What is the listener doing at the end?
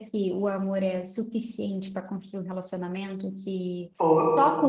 listening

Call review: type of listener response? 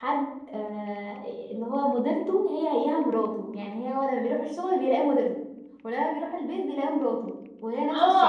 taking over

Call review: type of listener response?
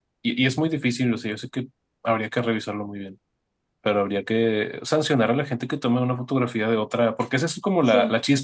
listening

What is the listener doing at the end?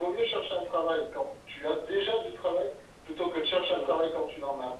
listening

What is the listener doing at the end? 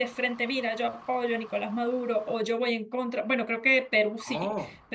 listening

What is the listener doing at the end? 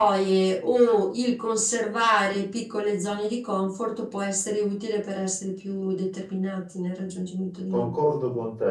taking over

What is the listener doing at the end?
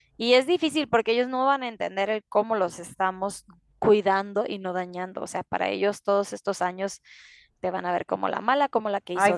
listening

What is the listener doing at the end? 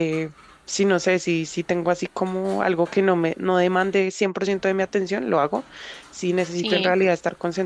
listening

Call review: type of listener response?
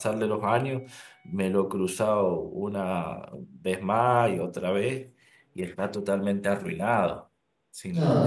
taking over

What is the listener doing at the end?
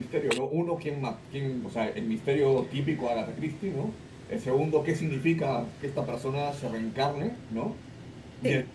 listening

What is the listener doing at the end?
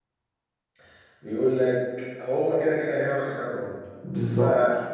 listening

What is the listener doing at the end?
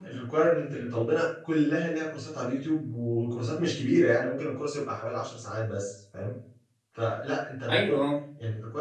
listening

